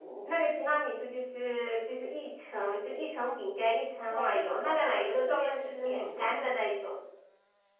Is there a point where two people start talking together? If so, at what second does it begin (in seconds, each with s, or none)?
4.1 s